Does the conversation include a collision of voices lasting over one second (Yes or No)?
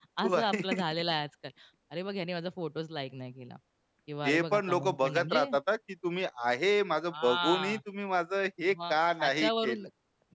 Yes